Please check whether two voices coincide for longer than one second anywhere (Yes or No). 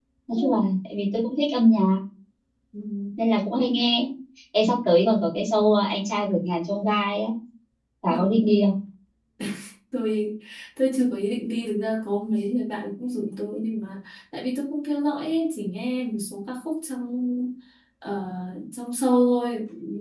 No